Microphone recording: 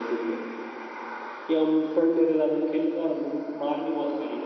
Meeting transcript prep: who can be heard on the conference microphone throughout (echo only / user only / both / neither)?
echo only